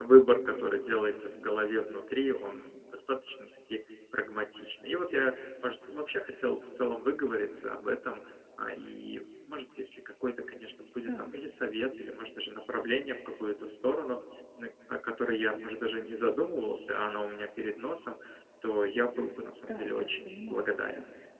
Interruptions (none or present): present